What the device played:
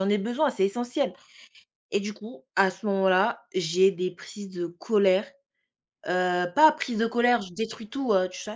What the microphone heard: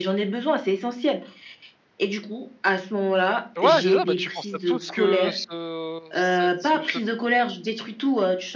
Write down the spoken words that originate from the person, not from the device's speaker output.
Ouais, c'est ça, bah, tu penses à tout ce que ce cette ce ce

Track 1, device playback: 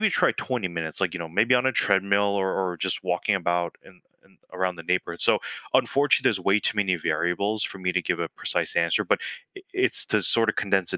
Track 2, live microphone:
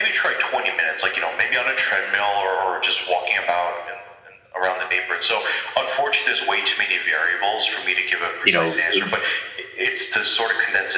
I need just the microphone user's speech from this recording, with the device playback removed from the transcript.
you know, th-

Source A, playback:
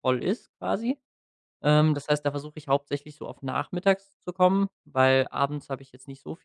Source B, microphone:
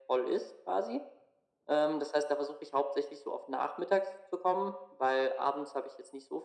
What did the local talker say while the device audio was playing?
none

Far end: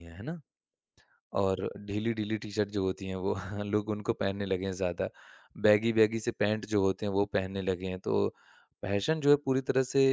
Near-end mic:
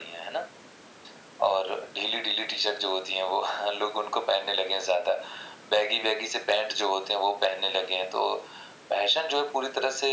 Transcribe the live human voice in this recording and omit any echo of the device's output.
none

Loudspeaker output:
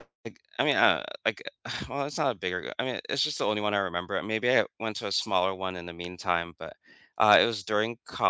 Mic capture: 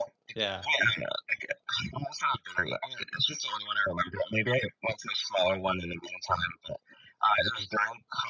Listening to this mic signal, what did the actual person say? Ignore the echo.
Yeah,

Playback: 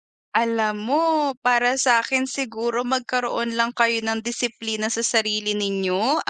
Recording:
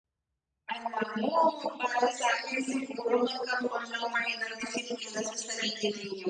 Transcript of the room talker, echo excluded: none

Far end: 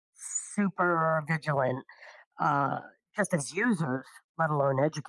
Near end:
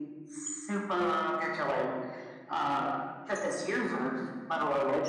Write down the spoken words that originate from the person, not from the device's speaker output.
none

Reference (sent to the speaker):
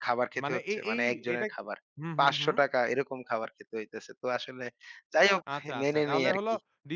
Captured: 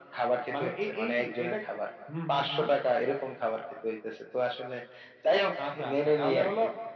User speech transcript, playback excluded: none

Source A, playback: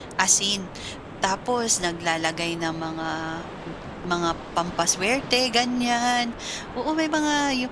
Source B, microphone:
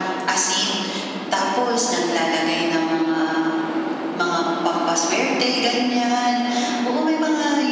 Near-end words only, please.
none

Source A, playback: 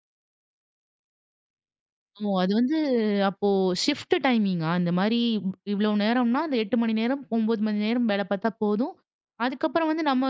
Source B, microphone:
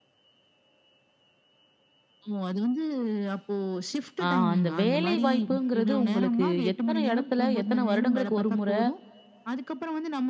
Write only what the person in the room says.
ஆ அந்த வேலை வாய்ப்புங்கிறது உங்களுக்கு எத்தன இடத்துல, எத்தன வருடங்களுக்கு ஒரு முறை,

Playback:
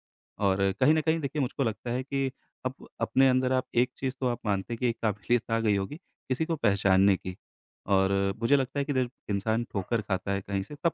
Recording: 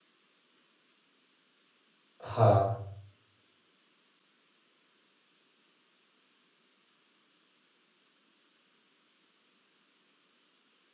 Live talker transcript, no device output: हाँ,

